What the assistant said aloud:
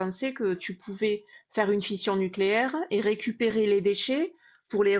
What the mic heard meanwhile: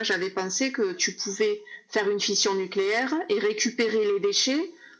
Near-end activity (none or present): none